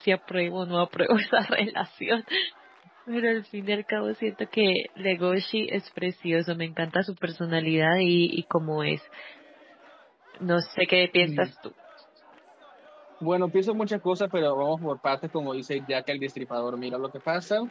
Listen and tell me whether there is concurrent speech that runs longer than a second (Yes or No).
No